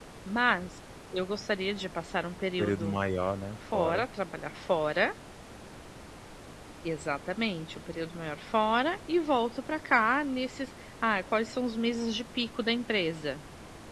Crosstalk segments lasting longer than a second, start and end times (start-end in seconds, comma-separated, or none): none